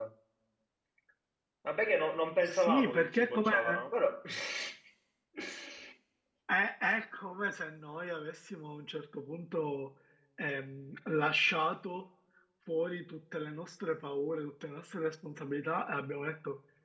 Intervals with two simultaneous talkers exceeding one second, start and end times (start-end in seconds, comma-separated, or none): 2.5-3.8